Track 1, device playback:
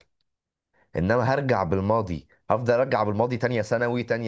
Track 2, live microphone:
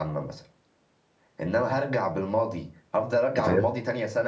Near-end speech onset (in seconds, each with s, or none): 3.4 s